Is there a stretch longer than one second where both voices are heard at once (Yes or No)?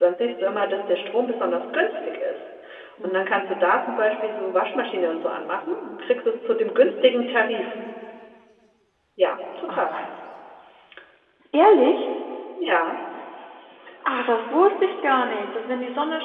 No